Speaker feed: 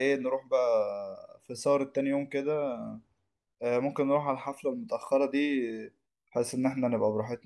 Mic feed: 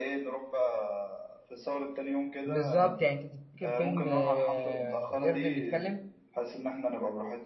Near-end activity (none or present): present